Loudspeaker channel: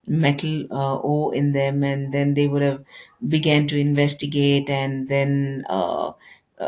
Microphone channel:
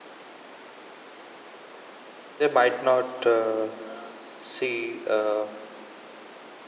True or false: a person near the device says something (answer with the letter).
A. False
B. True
B